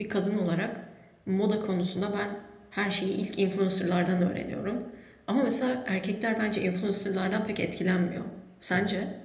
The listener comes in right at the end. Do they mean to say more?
Yes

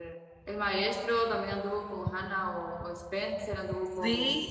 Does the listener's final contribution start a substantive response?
Yes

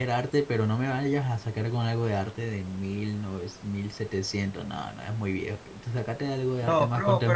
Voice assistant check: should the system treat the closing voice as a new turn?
Yes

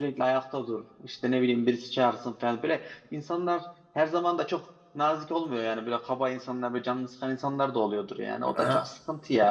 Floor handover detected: No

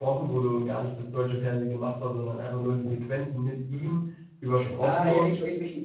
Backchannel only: No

